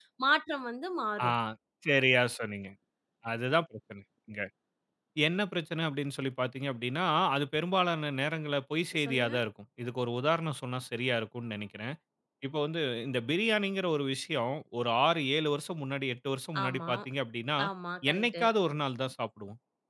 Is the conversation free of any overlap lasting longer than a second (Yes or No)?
Yes